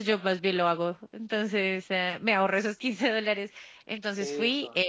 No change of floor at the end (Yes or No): Yes